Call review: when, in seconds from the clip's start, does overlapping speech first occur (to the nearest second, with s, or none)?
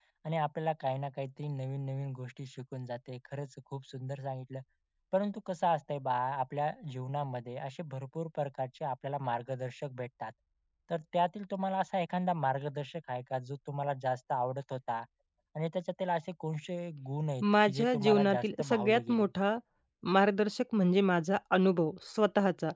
17 s